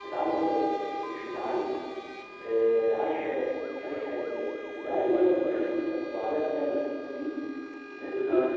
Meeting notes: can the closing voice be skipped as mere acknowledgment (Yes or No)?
Yes